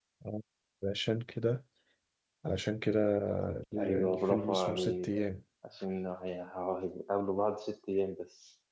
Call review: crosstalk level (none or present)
present